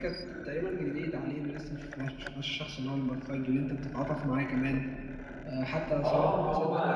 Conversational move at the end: taking over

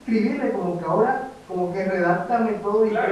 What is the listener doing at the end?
taking over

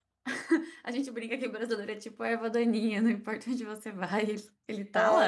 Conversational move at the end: taking over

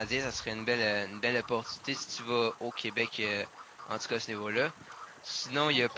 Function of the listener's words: taking over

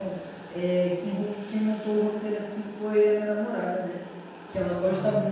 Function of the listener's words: listening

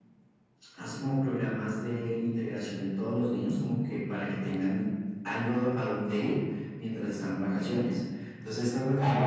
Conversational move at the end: taking over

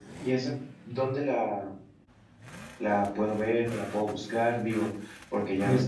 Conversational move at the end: listening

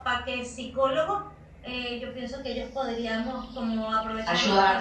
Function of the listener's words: listening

